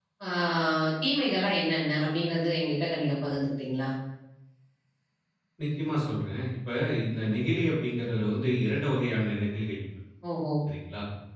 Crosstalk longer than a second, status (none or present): none